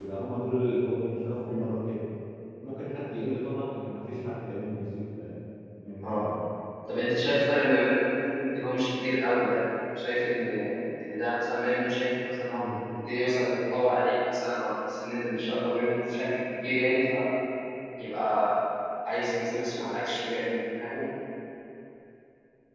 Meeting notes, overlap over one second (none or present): none